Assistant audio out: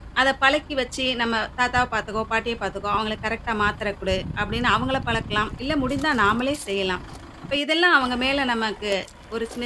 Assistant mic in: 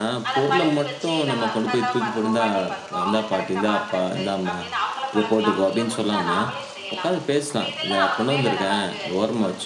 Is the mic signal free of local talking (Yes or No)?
No